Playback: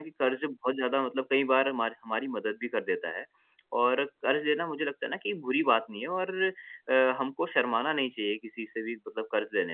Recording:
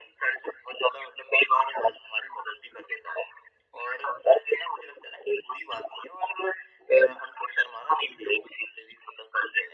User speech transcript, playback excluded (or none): none